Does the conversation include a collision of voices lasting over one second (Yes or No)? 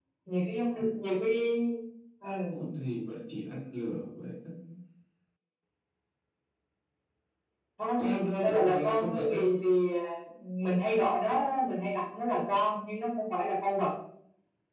Yes